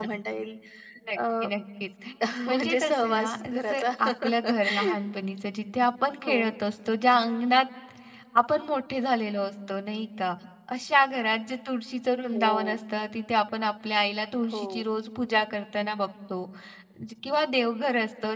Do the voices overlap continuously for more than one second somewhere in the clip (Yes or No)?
Yes